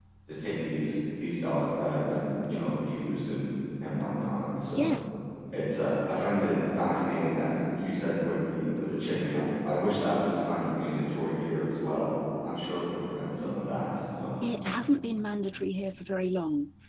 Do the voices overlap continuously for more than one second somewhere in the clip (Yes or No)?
No